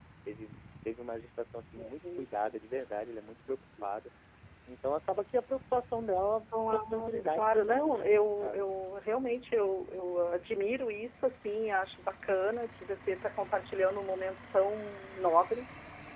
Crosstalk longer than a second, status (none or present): present